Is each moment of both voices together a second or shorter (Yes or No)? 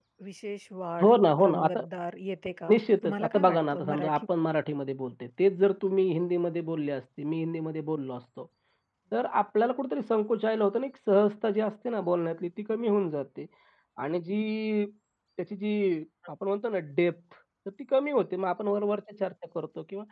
No